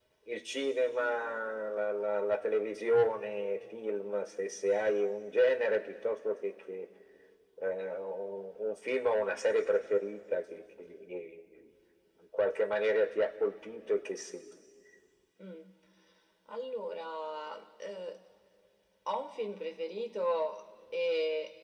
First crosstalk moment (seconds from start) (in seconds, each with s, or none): none